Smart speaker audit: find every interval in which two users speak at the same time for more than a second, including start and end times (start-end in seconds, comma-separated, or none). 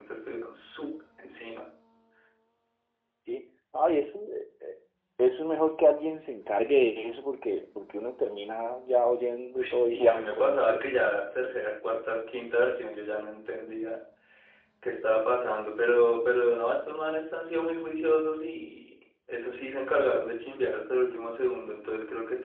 9.6-10.8